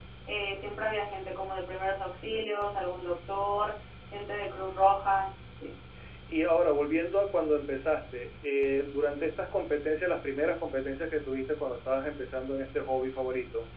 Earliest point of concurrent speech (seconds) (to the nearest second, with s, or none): none